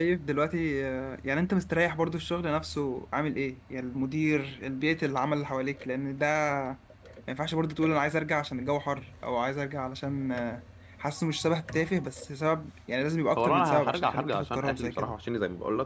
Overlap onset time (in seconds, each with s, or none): 13.4 s